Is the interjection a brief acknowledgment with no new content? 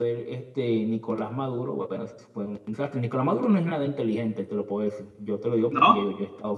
Yes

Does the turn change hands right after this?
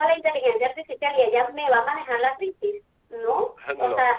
No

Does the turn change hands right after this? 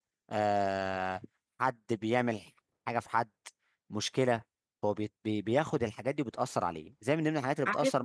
No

